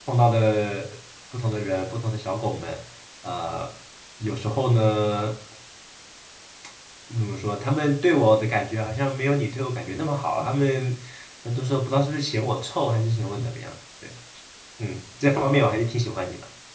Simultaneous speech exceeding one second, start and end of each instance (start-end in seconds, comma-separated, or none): none